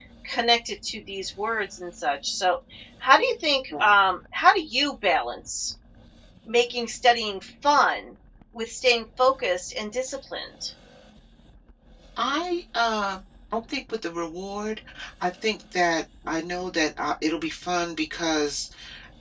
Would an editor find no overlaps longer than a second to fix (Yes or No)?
Yes